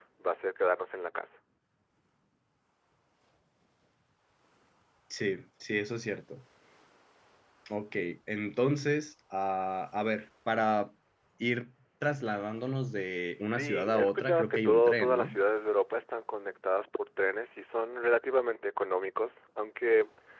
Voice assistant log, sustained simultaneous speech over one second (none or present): present